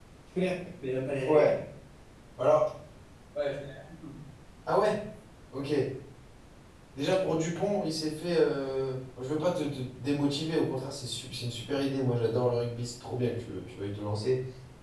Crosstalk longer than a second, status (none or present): none